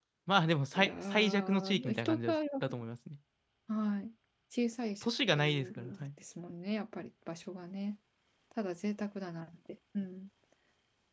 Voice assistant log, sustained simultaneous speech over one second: present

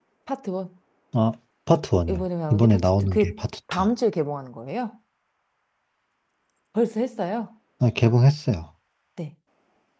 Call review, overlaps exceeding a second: present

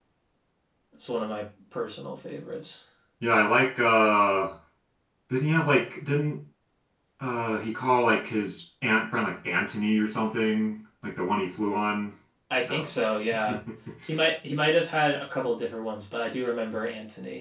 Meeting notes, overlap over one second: none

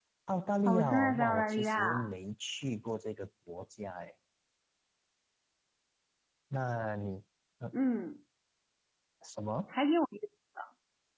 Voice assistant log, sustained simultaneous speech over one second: present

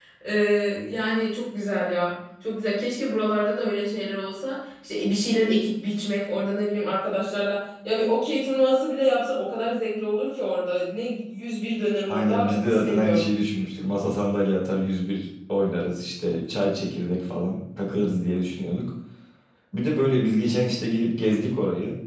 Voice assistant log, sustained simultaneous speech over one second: present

